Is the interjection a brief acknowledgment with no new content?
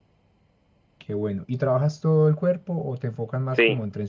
No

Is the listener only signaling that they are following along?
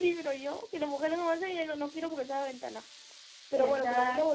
Yes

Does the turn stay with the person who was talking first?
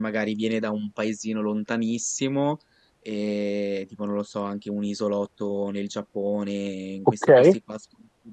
Yes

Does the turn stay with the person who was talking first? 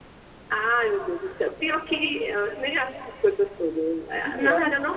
Yes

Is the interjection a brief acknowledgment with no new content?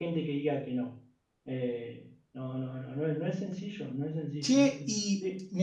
No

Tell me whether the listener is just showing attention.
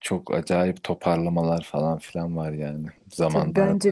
No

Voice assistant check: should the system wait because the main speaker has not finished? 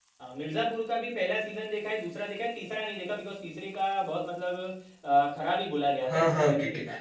No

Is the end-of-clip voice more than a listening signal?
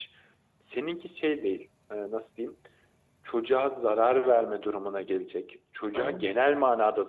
No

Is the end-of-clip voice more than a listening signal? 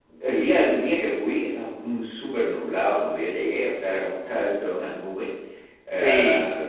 No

